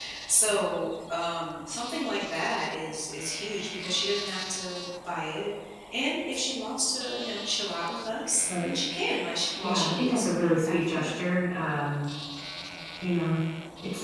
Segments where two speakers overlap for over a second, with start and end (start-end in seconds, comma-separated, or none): 9.6-11.1